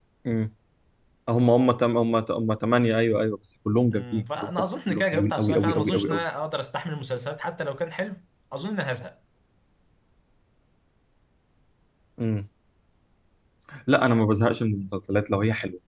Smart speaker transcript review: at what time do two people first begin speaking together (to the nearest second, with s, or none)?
4 s